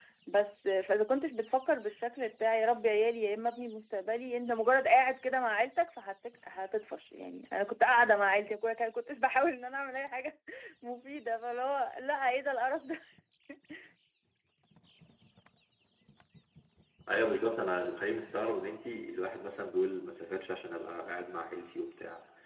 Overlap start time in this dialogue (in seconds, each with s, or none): none